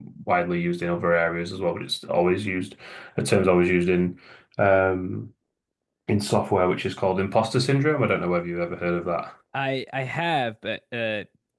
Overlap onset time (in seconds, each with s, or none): none